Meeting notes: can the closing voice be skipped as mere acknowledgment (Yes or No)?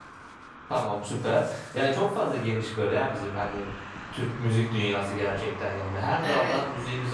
Yes